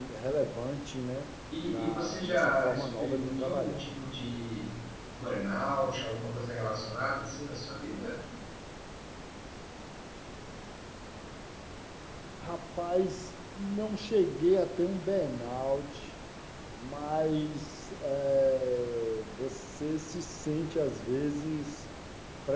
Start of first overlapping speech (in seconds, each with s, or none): 1.7 s